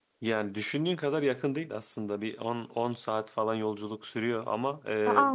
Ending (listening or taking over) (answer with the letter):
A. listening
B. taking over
A